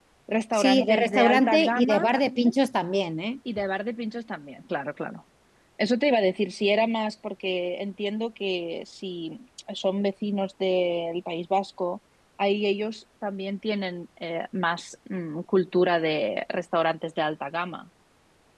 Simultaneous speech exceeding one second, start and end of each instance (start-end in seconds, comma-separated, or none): 0.5-2.1